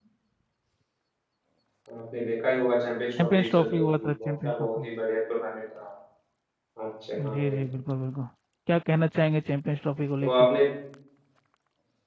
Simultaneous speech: Yes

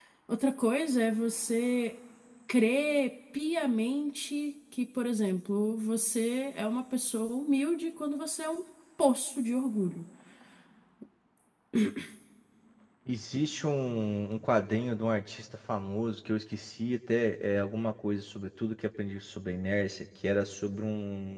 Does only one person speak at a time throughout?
Yes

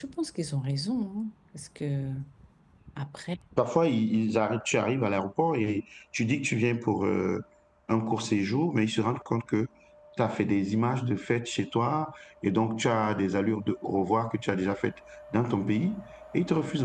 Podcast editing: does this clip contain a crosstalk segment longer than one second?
No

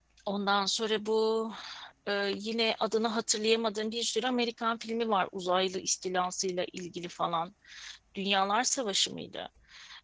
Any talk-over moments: No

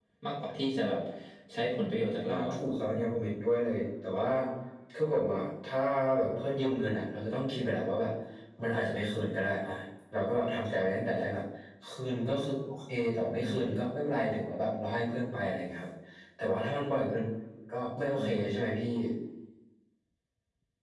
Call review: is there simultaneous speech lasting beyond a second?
No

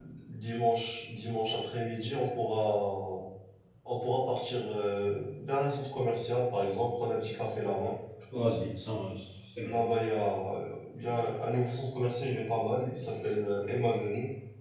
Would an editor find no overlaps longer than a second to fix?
Yes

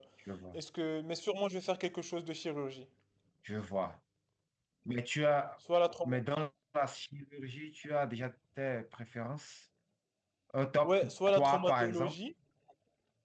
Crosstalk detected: Yes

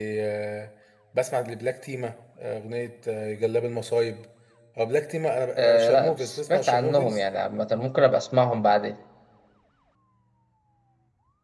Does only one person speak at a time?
No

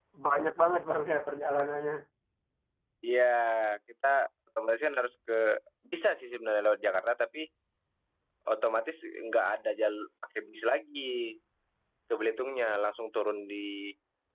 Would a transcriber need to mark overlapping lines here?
No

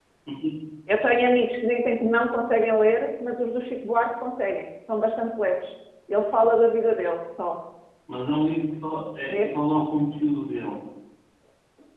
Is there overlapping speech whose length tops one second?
No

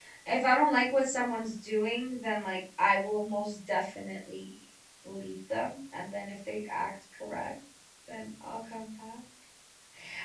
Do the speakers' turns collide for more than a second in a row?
No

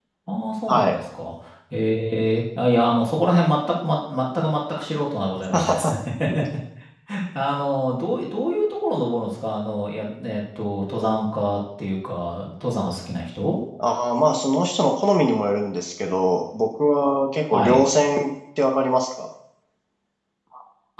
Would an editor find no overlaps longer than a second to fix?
Yes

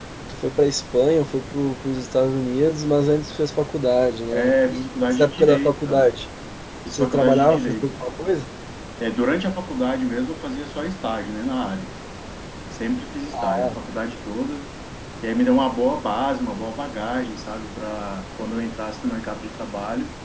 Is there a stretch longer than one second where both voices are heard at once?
Yes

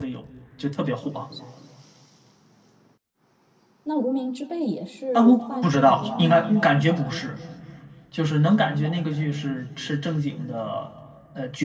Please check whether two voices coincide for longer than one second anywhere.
Yes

